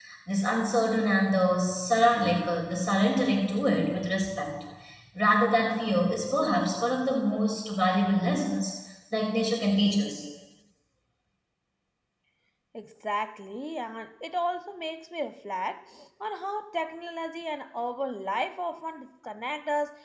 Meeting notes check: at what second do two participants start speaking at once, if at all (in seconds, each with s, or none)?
none